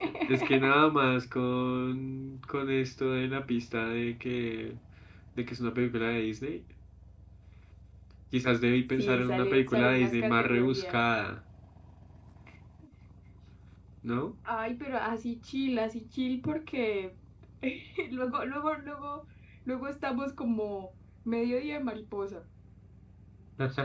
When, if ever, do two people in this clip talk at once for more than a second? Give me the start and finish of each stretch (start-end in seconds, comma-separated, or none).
9.0-11.0